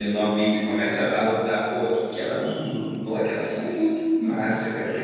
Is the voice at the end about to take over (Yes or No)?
No